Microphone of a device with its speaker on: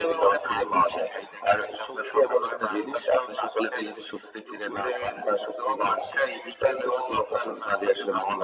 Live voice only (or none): none